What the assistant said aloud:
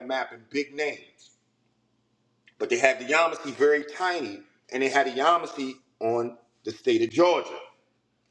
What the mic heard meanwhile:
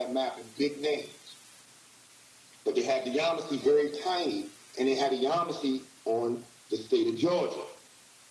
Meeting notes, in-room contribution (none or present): none